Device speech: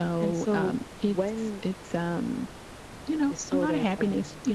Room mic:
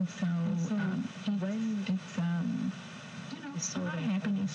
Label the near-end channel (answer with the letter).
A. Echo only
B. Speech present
A